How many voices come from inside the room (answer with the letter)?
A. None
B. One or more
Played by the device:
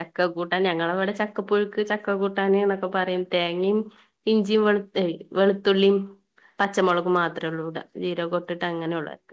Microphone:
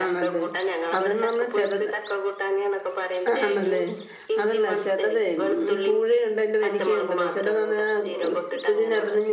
B